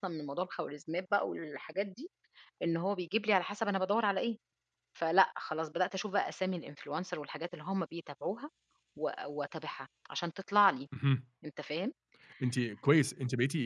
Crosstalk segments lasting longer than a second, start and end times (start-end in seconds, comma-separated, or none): none